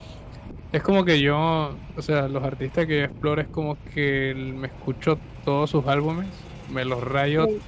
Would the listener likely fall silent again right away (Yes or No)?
Yes